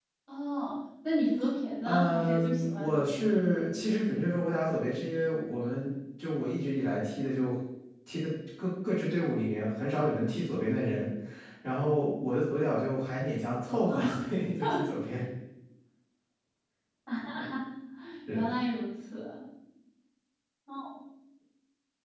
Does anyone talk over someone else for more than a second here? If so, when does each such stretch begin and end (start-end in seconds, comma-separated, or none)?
1.8-3.2